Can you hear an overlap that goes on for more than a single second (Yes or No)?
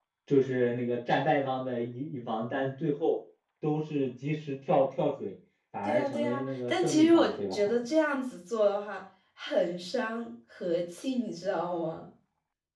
Yes